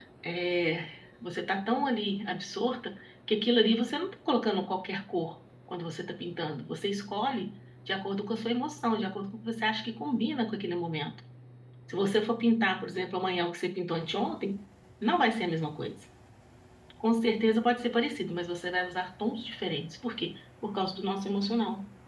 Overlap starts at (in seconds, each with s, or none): none